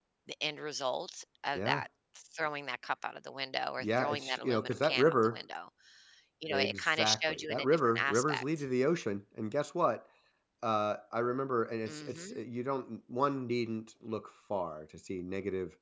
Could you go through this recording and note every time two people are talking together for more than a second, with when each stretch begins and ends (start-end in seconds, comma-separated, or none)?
3.8-5.4, 6.5-8.7